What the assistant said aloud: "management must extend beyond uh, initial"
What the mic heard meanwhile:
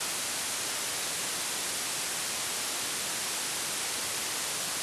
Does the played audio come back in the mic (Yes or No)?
No